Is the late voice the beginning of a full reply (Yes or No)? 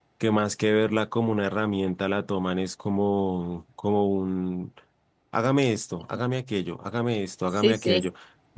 No